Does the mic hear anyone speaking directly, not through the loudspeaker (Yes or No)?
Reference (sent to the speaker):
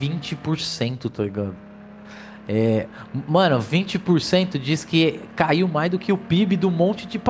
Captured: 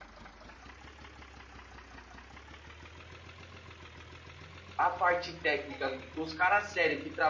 Yes